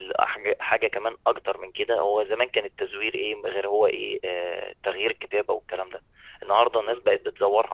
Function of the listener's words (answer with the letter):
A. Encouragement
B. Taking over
A